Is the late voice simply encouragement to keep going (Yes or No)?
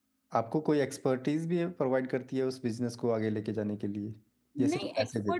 No